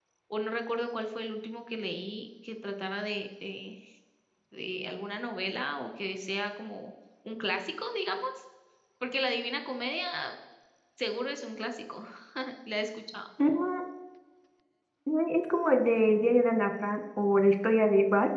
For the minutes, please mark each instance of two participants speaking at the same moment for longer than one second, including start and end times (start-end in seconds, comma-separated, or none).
none